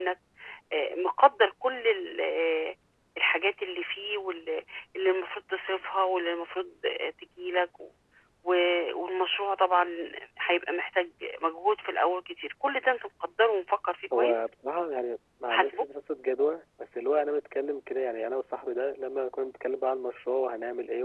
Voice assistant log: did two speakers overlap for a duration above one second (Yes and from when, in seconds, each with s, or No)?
No